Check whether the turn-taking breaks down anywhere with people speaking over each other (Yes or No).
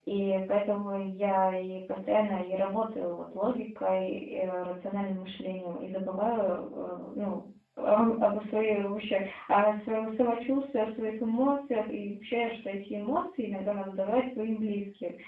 No